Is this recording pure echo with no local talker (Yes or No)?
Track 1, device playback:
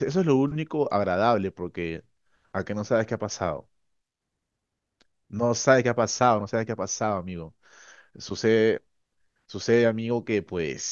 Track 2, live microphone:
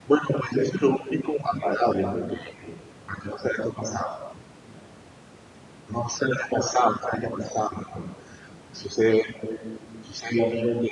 Yes